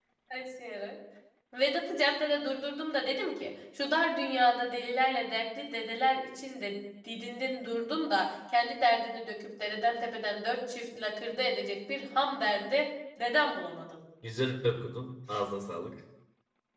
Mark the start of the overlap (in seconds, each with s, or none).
none